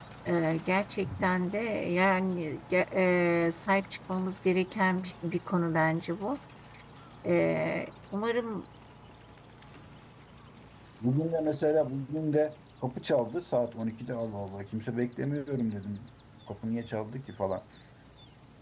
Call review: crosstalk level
none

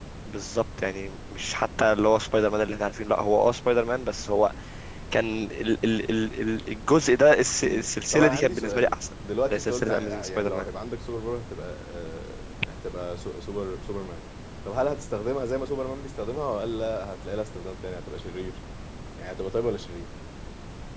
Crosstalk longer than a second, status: present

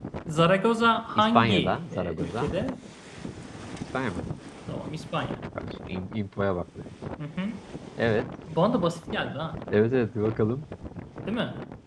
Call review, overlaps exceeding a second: present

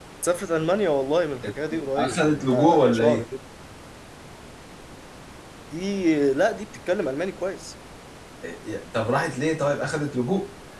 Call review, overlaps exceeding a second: present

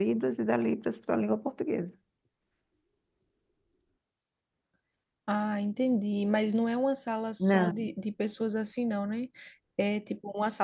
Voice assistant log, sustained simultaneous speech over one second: none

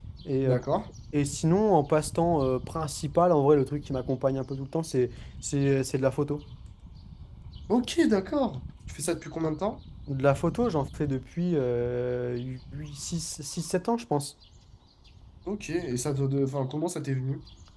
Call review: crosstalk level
none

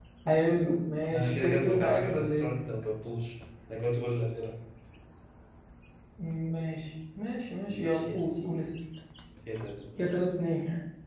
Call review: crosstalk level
present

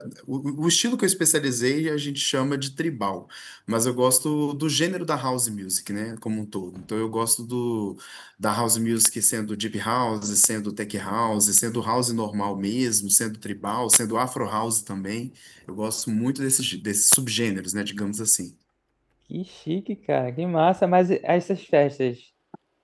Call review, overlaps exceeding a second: none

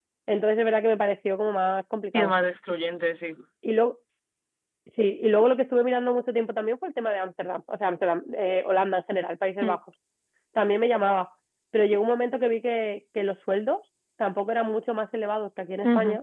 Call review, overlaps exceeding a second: none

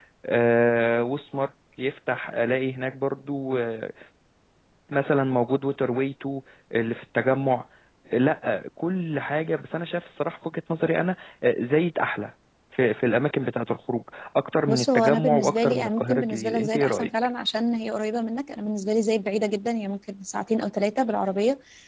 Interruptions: present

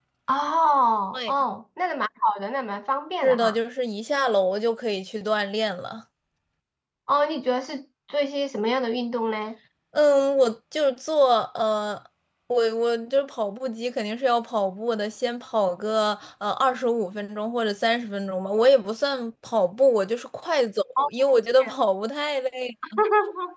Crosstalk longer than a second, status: none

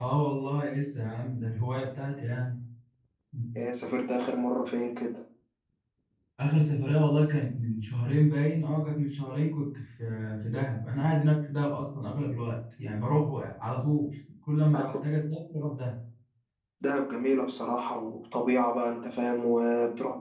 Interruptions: none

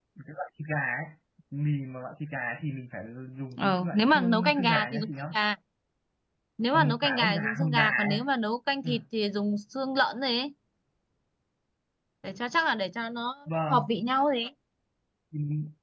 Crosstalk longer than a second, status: present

